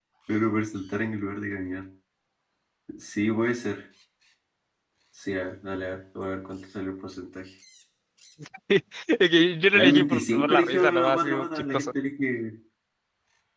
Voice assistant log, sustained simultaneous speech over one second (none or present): present